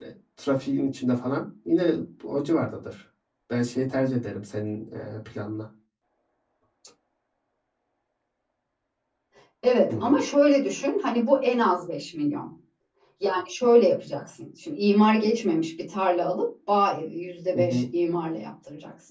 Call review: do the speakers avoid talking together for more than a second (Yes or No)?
Yes